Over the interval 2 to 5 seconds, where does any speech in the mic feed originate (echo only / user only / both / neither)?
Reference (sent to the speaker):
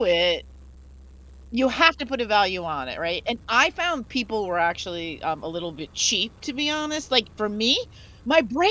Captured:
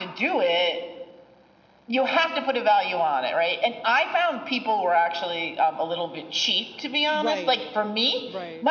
echo only